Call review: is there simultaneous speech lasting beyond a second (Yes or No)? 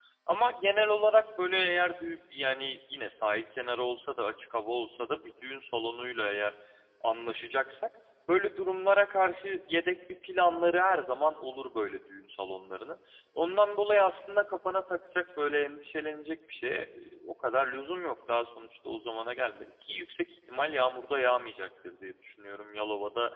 No